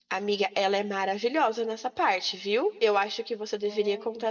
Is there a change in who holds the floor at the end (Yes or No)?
No